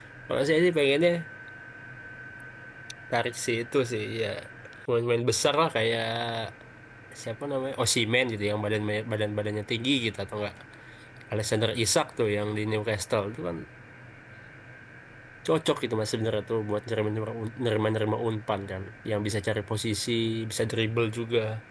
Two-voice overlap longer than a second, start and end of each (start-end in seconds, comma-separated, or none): none